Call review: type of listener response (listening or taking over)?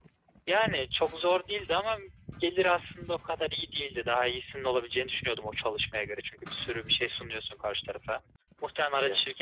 listening